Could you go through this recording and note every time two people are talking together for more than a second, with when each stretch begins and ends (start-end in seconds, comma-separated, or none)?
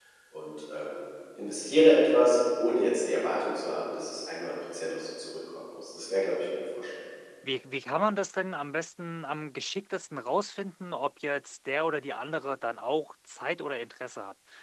none